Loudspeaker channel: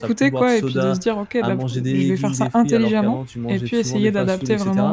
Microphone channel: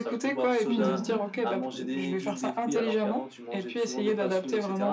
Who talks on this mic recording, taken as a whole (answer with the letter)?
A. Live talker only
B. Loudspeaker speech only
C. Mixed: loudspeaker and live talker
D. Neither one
C